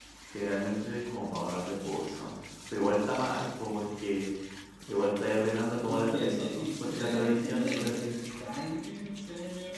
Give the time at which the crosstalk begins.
5.9 s

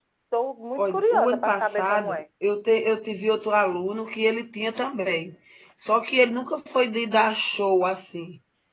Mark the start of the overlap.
0.8 s

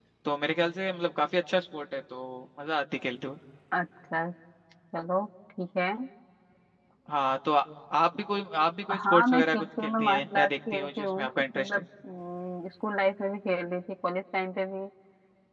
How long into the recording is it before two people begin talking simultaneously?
8.9 s

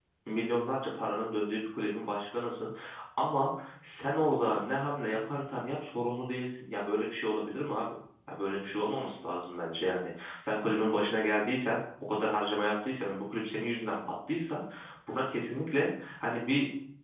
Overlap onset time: none

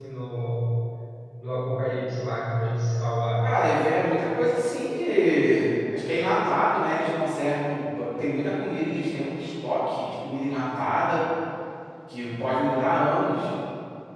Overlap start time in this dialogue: none

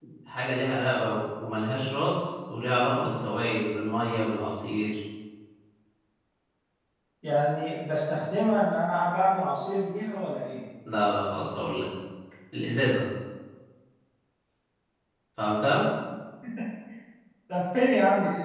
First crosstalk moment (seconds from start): none

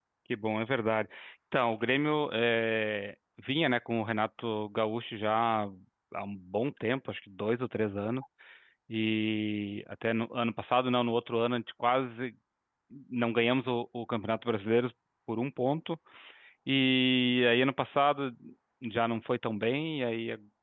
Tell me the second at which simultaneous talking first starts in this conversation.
none

